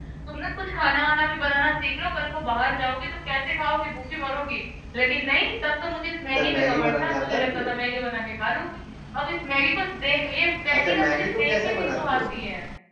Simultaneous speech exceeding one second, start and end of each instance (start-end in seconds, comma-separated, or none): 6.4-7.7, 10.8-12.3